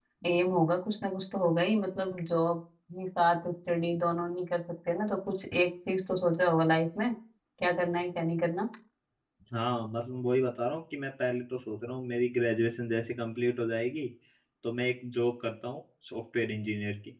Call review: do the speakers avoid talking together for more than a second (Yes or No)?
Yes